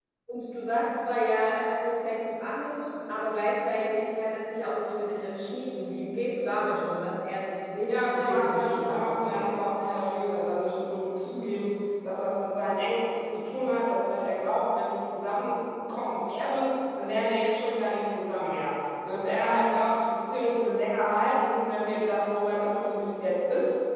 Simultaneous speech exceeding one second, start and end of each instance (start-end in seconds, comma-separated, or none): 7.9-9.5